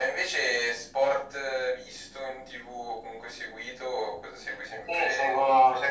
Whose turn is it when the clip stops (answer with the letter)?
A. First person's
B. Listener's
B